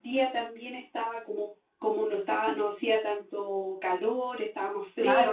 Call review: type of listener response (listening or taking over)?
taking over